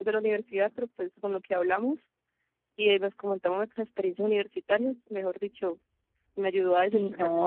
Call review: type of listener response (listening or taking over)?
taking over